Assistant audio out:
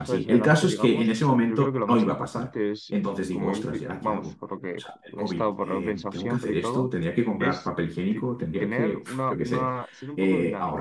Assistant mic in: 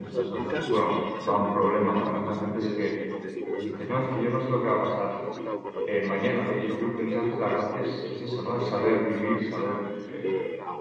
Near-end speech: present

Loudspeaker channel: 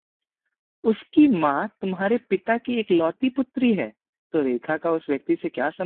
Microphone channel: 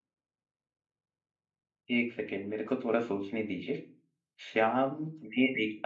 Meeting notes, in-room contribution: present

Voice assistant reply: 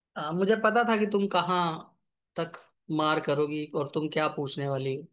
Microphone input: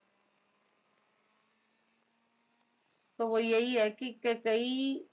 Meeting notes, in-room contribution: present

